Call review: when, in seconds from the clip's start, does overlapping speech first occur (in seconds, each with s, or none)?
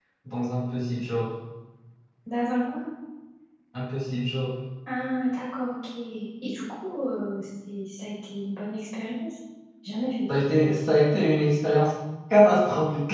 none